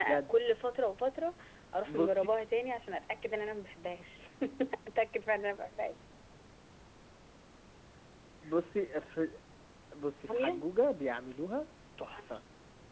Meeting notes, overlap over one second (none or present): none